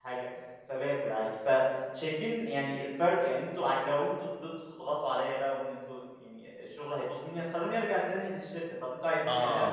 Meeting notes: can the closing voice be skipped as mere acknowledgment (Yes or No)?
No